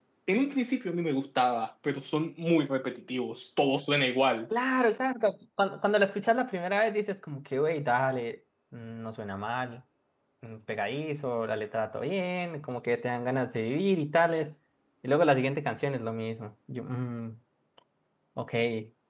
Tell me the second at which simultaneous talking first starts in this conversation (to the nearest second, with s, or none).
none